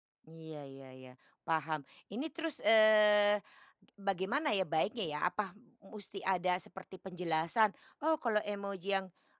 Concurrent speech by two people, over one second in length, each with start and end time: none

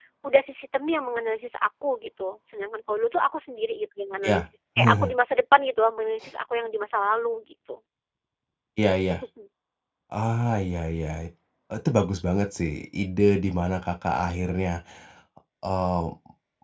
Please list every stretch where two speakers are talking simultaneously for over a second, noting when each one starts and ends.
none

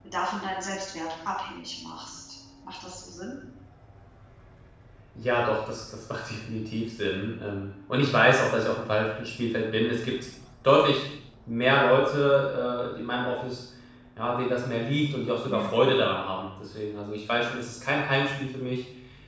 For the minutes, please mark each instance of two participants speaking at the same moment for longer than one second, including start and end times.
none

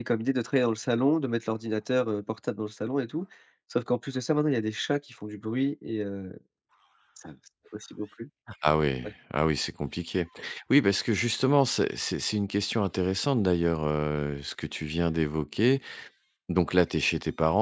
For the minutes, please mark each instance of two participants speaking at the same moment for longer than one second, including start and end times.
none

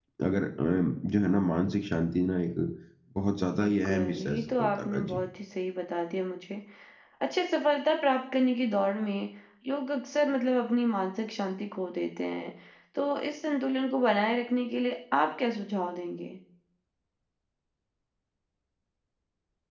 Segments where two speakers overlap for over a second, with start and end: 3.6-5.2

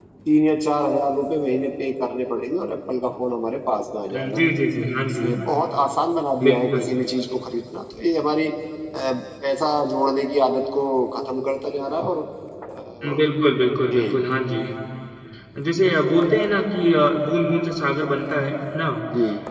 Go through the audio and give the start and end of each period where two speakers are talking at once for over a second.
none

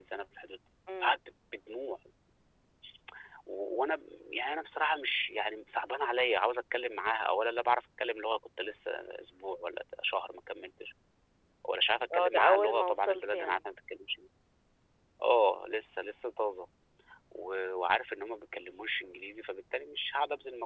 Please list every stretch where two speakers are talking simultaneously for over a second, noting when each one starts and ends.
12.1-13.6

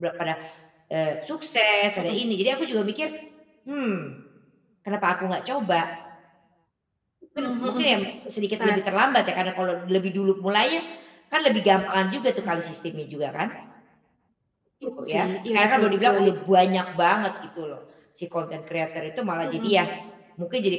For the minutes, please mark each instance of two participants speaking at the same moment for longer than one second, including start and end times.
15.1-16.3

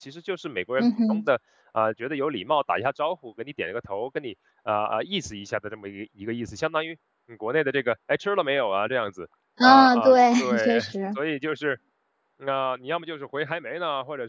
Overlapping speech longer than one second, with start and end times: 9.6-11.2

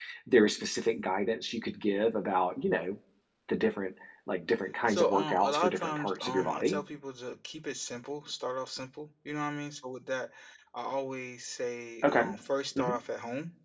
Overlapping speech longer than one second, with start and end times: 4.9-6.8

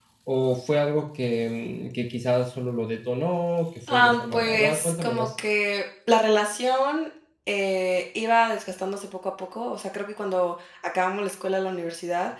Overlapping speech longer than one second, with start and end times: 3.9-5.3

